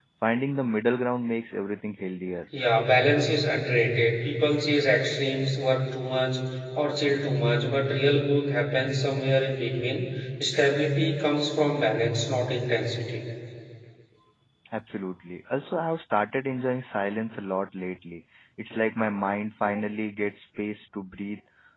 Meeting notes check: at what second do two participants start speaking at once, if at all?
none

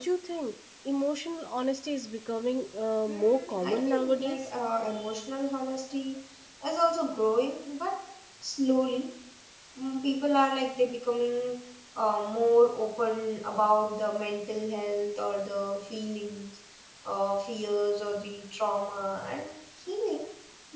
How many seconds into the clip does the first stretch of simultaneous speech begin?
3.1 s

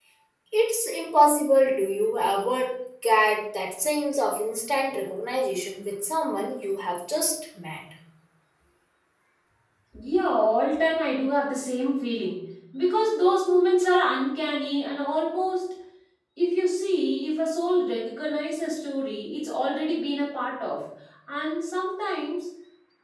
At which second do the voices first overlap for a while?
none

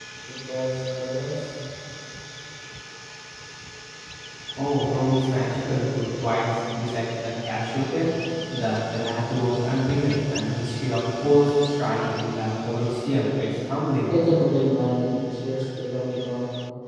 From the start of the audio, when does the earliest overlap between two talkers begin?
none

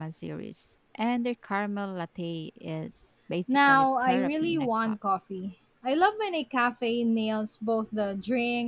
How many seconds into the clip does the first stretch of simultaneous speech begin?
3.5 s

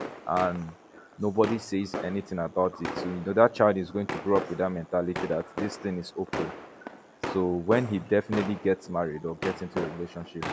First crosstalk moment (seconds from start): none

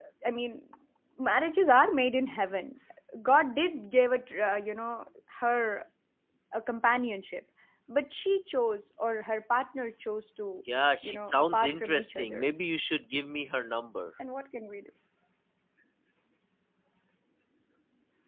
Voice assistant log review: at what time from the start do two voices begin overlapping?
11.0 s

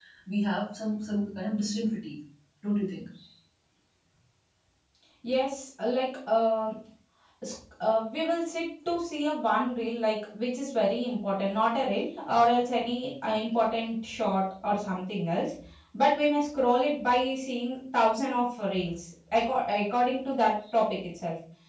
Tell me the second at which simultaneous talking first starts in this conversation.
none

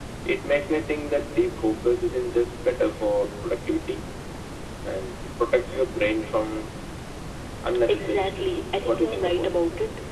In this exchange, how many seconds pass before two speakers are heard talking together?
7.9 s

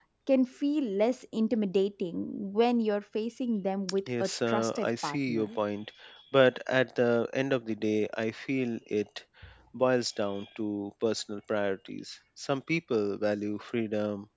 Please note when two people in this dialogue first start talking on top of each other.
4.1 s

